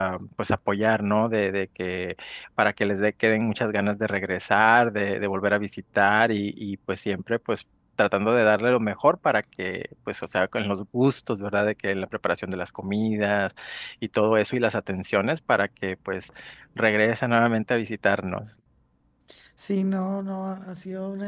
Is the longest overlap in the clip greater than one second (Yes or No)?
No